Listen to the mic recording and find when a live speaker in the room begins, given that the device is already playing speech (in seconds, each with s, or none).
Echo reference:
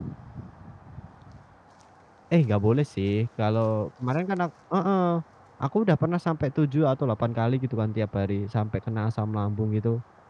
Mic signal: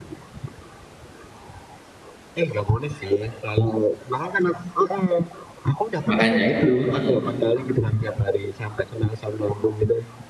6.1 s